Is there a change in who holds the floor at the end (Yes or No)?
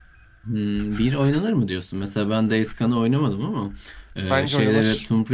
No